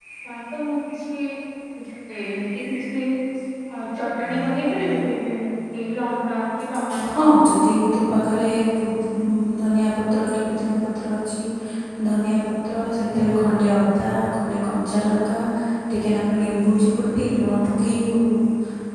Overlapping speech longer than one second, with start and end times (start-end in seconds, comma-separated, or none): none